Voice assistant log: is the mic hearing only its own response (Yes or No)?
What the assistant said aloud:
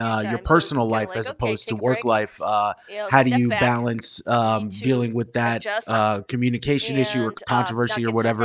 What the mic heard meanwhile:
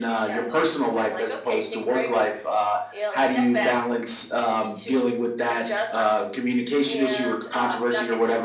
Yes